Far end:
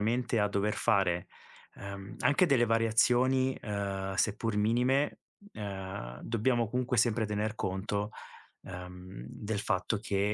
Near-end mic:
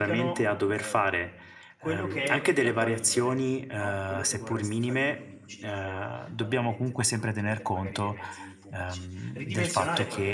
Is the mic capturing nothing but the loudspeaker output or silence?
No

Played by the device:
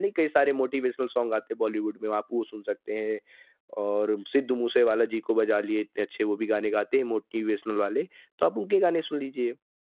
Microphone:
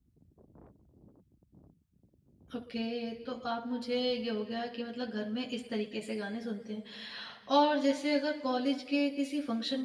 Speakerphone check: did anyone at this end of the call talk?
Yes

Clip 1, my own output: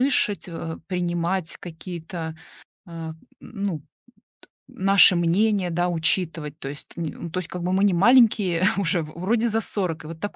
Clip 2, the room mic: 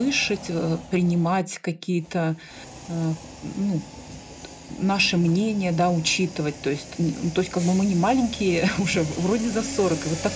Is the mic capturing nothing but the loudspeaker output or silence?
Yes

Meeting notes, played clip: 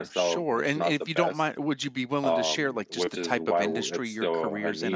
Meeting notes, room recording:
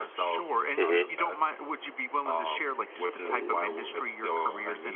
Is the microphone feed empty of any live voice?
No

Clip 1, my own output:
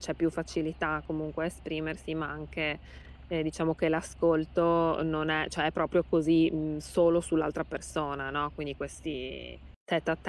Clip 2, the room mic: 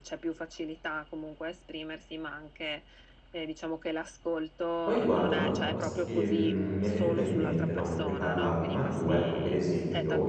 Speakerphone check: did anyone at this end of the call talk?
Yes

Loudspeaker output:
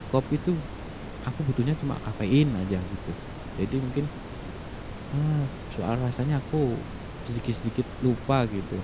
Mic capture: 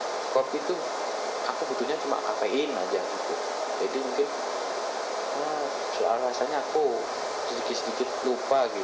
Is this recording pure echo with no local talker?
Yes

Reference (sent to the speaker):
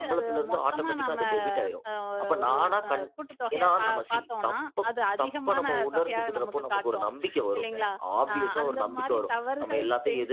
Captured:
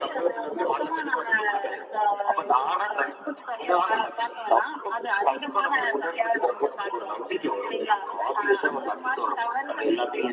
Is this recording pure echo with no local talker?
Yes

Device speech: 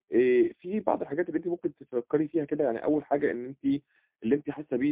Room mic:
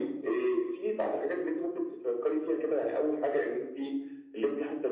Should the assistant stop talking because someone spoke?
No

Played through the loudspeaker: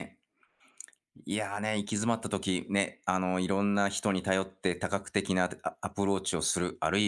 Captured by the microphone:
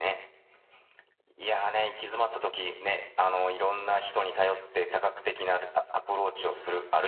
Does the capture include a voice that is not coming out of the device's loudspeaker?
No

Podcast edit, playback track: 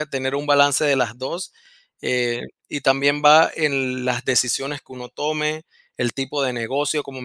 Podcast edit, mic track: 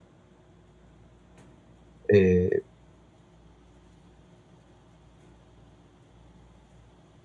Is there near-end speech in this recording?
Yes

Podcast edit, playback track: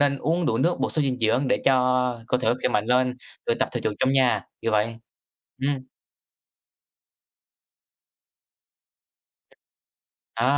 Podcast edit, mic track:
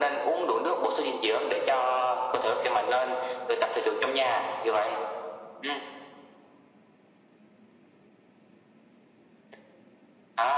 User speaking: No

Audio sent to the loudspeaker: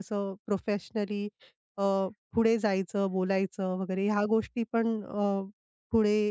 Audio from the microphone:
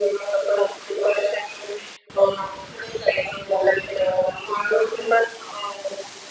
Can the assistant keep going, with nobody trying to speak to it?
Yes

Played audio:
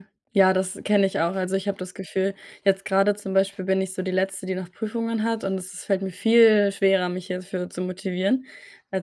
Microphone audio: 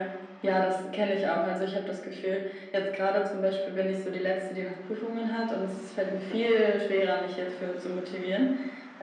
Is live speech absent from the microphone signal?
No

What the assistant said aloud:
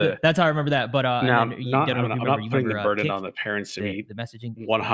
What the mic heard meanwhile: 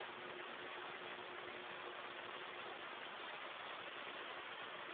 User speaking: No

